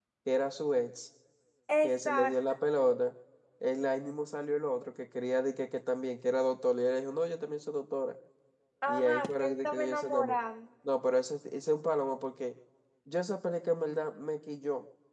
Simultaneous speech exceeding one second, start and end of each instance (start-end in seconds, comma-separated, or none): 8.9-10.3